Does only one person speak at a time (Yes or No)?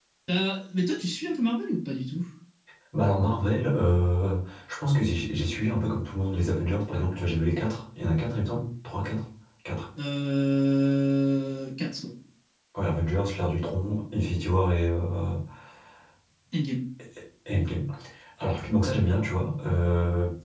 Yes